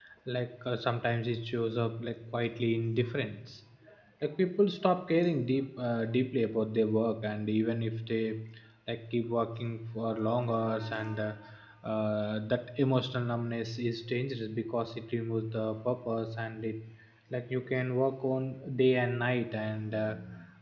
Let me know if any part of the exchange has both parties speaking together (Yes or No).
No